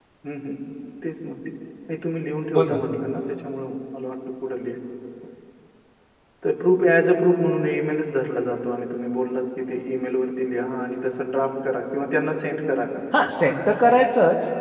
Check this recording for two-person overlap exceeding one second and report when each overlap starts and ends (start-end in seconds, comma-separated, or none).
none